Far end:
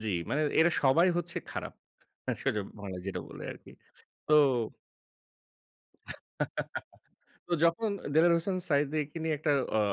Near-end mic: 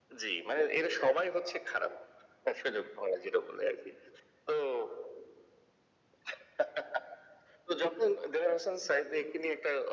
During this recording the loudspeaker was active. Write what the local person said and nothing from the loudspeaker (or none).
none